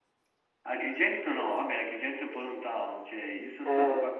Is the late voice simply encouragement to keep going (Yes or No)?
Yes